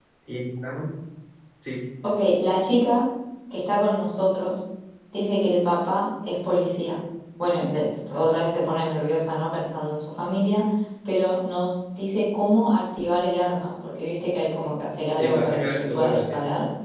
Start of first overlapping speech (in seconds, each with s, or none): 15.2 s